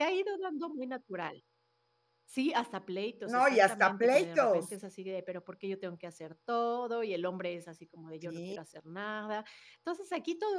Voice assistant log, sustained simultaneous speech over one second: present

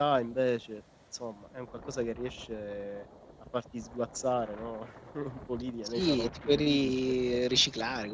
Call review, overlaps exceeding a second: present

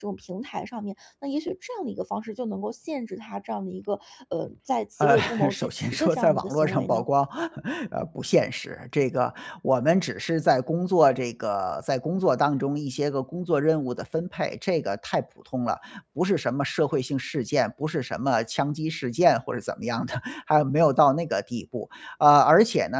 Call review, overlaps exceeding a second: present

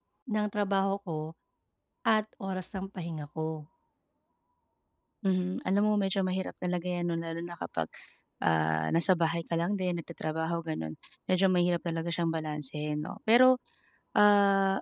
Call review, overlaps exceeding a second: none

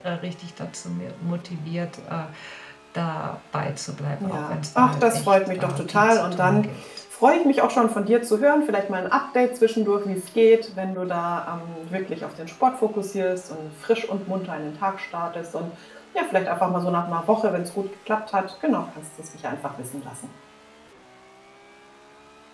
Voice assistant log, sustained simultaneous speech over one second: present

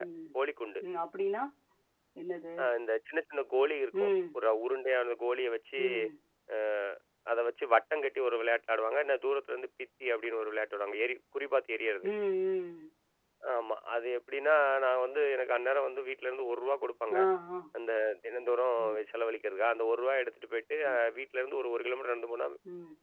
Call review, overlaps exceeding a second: none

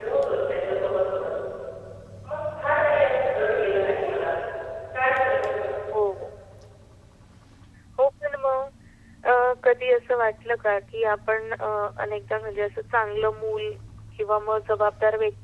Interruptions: none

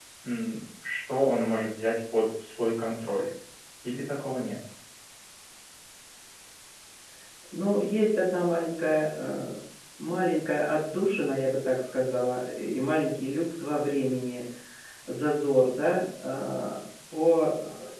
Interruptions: none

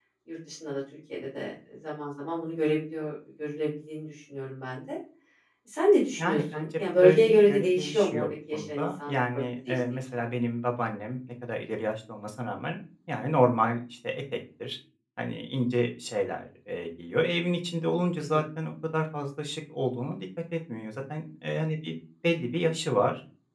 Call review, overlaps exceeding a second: present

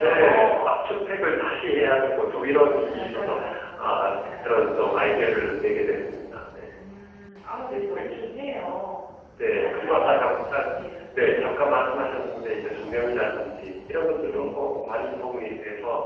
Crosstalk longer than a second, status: present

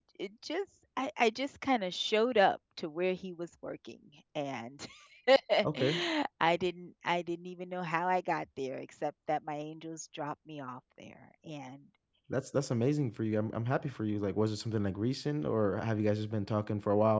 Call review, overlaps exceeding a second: none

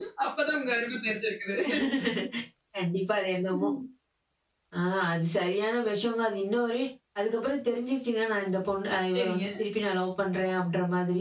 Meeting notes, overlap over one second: none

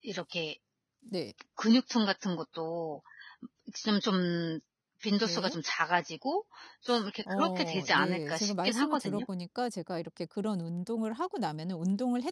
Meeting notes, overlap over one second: present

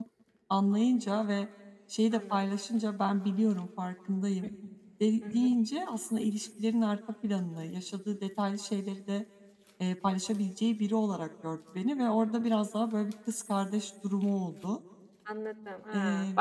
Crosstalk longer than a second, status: none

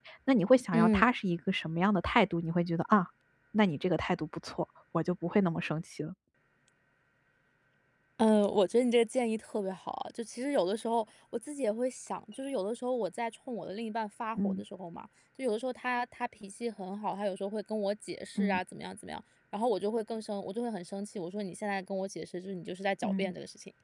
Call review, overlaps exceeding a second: none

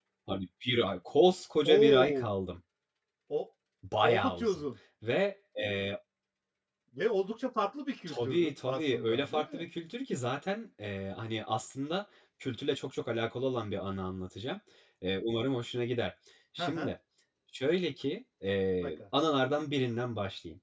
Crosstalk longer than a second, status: present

